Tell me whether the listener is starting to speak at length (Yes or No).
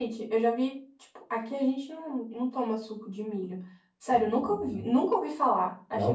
Yes